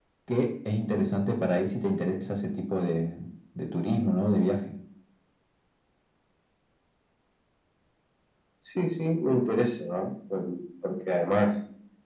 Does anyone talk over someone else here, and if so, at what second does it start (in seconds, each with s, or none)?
none